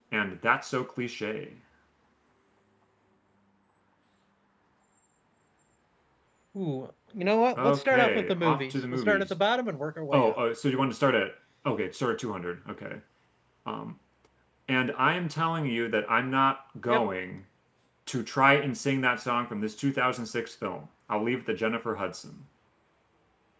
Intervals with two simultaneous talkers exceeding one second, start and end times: 7.6-9.4

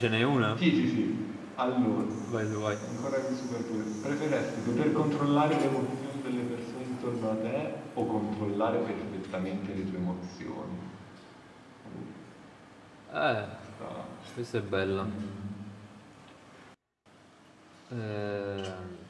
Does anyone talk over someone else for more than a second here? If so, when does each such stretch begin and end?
none

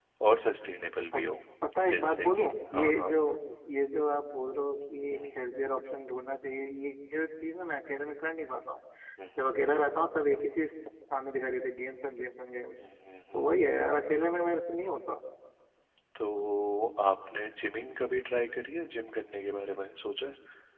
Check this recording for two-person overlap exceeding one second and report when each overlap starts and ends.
1.9-3.1

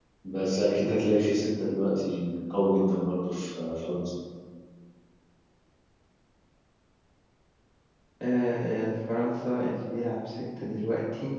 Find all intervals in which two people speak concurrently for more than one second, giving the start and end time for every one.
none

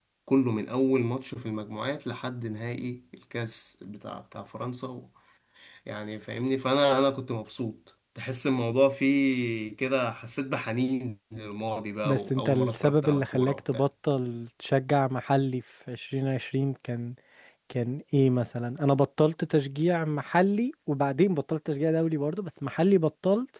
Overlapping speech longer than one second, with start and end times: 12.0-13.8

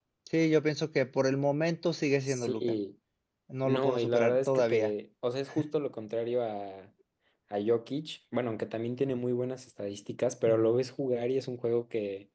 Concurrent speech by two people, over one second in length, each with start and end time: 3.6-4.9

